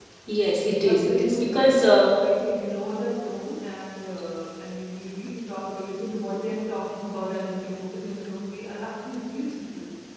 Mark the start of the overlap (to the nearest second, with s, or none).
1 s